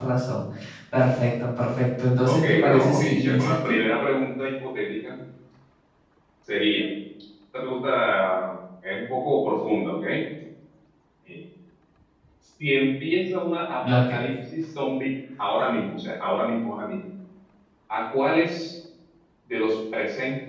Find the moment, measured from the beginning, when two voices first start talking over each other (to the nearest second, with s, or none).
2 s